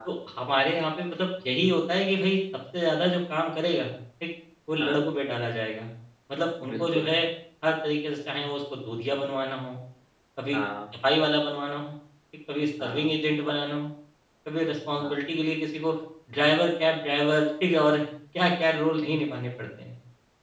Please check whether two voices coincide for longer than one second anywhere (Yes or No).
No